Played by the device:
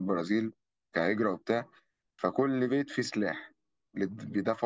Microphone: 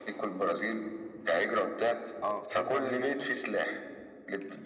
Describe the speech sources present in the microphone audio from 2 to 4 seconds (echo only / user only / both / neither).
both